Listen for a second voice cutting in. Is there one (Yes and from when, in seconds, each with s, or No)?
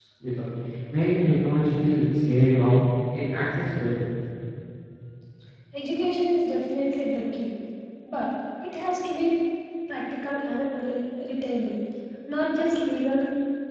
No